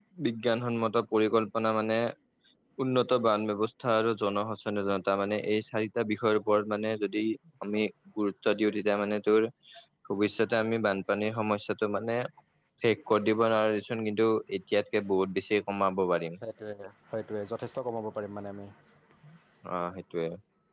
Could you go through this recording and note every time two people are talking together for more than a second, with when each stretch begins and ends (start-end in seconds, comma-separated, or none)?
none